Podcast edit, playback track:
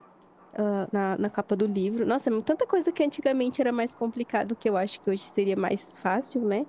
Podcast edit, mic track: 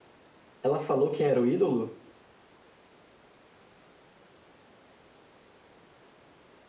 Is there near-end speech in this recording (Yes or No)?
Yes